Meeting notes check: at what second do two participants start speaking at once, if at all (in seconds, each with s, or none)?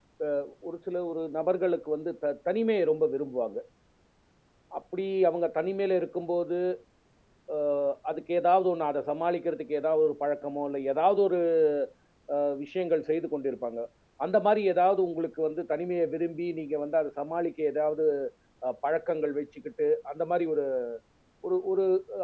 none